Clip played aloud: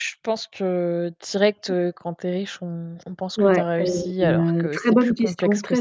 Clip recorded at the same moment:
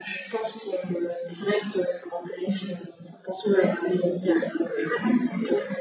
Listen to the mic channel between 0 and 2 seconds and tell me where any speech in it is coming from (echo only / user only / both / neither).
echo only